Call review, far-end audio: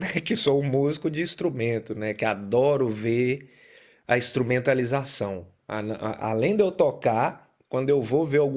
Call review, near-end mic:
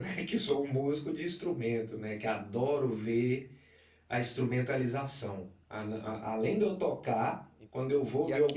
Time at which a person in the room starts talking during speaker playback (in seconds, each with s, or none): 7.5 s